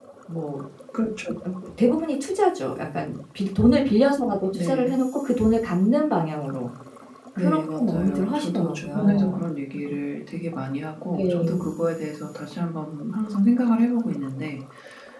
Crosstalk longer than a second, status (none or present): present